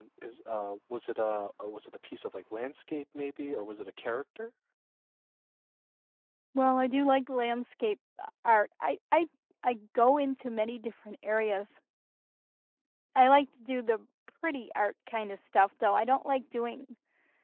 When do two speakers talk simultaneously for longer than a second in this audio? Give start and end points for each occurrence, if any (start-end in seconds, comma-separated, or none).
none